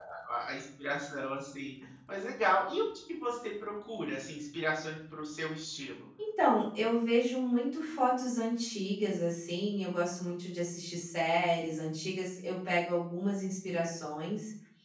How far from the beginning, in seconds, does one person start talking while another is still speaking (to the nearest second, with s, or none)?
none